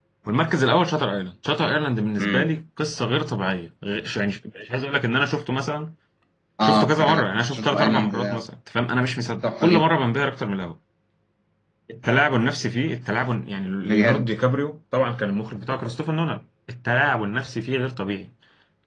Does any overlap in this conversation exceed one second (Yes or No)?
Yes